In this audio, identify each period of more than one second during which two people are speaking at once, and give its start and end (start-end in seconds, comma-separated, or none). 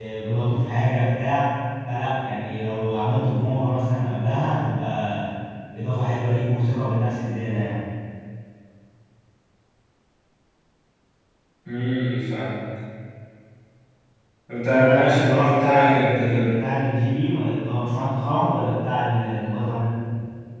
14.7-16.6